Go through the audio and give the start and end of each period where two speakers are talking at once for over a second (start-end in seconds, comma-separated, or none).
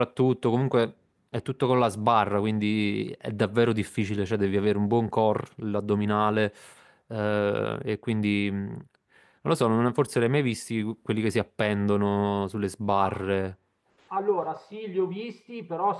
none